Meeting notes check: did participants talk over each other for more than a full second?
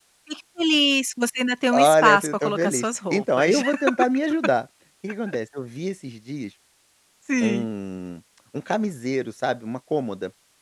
Yes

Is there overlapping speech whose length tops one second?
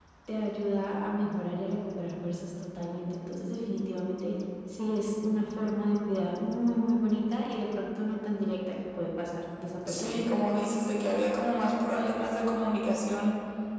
No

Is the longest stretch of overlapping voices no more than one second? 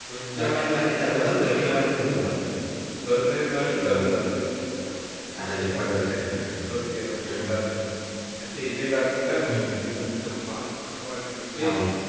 No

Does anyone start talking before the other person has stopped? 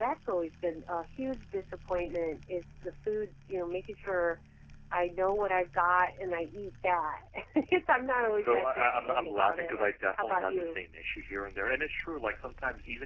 Yes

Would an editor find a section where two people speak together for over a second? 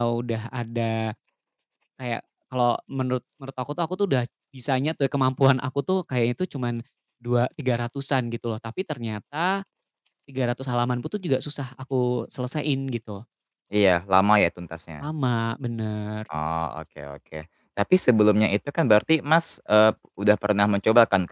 No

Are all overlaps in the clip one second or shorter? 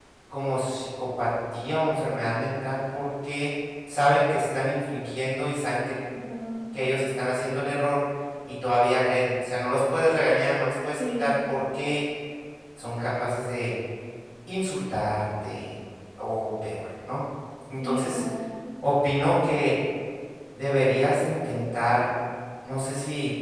Yes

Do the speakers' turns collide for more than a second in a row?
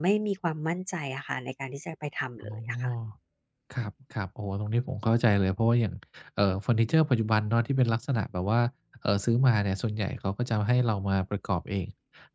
No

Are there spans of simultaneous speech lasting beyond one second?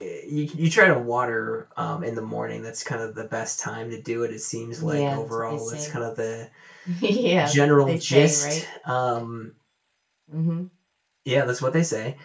Yes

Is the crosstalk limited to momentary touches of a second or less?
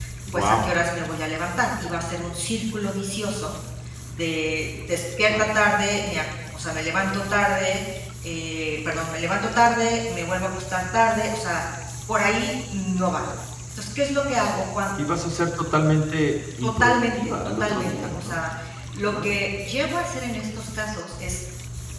No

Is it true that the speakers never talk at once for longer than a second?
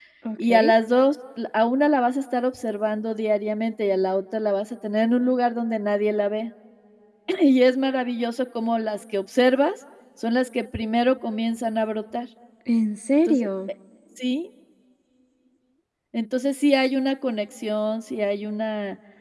Yes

